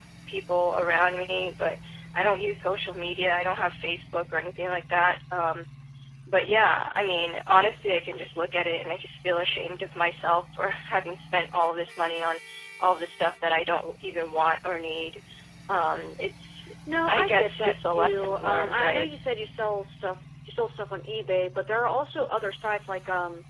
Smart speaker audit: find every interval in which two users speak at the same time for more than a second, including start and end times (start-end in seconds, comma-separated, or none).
17.1-19.1